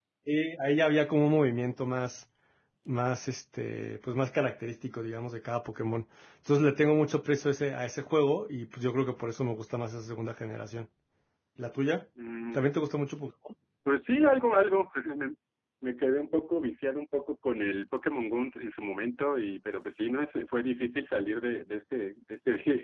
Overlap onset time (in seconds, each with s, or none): none